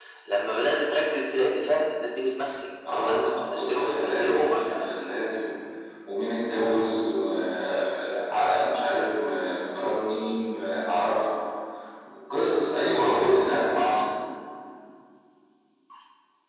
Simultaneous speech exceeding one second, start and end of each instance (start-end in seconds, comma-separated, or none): 2.9-4.9